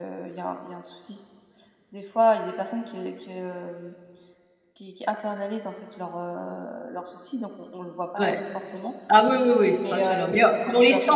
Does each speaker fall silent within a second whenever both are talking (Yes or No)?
No